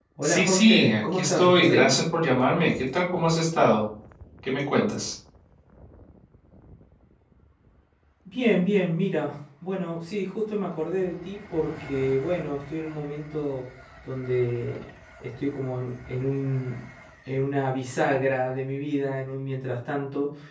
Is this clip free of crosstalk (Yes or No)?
No